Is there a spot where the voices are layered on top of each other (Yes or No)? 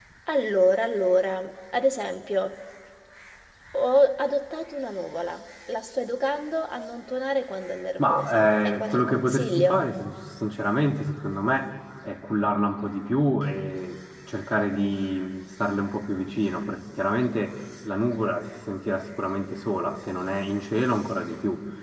Yes